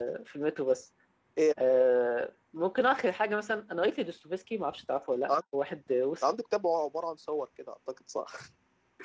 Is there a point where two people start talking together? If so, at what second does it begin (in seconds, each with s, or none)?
none